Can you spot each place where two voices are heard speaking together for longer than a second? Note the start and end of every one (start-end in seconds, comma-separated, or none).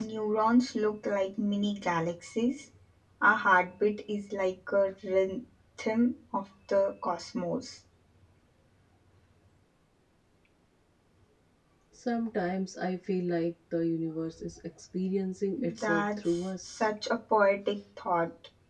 15.5-16.9